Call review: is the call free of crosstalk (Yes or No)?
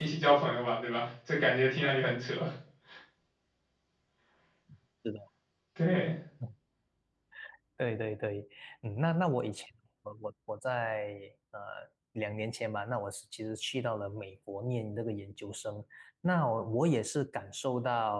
Yes